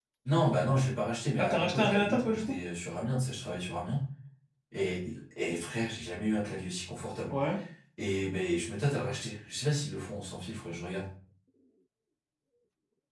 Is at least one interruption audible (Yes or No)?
Yes